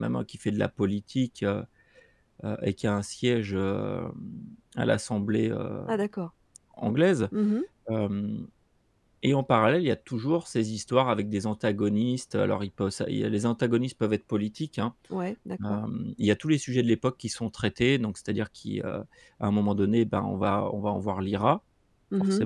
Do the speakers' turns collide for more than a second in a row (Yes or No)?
No